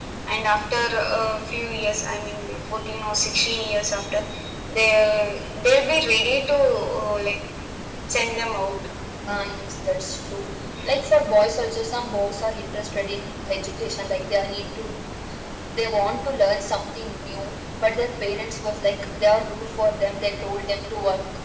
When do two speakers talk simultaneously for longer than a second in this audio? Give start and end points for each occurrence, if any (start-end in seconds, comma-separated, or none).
none